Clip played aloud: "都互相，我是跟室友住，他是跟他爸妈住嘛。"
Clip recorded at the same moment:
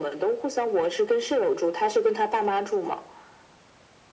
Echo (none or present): present